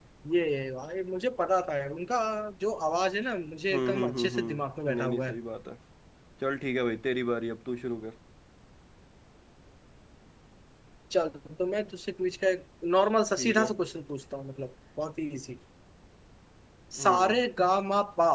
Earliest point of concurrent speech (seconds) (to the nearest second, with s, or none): 4 s